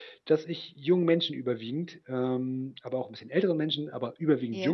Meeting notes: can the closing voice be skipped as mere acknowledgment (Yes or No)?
Yes